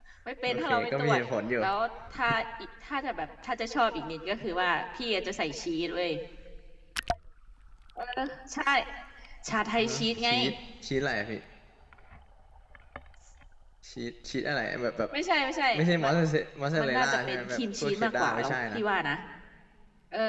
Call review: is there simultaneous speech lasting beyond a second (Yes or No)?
Yes